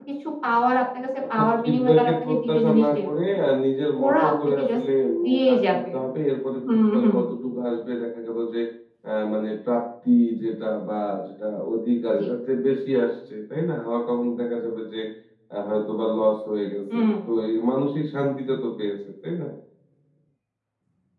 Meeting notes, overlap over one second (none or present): present